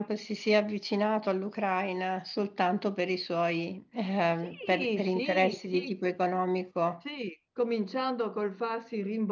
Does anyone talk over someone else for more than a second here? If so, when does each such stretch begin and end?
4.4-5.9

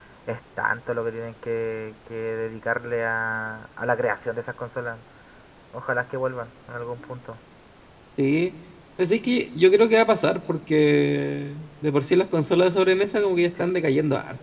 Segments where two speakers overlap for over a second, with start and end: none

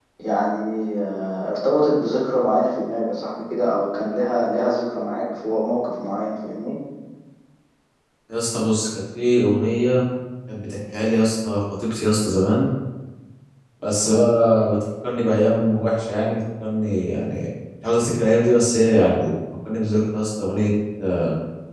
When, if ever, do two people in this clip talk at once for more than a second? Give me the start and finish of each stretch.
none

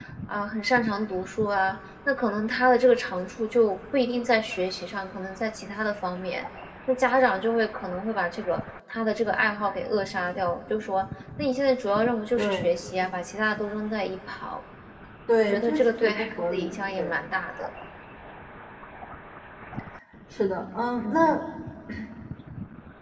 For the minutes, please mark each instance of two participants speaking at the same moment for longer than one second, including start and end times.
15.4-17.2

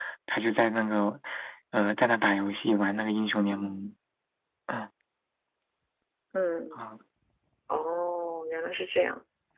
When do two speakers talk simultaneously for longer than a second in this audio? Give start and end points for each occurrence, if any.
none

